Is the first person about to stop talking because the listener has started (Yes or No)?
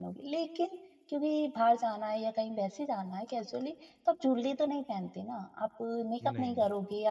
No